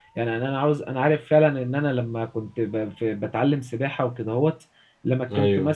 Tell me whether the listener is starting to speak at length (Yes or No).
No